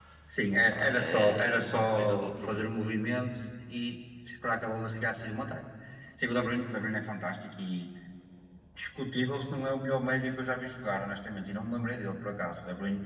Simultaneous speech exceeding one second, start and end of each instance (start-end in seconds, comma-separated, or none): 0.9-2.7